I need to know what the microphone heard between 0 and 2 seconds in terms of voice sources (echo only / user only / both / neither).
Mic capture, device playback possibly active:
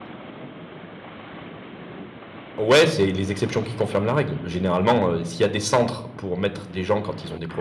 neither